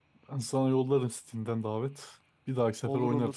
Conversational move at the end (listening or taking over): taking over